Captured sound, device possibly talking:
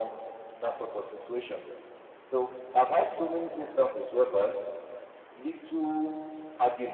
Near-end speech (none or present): none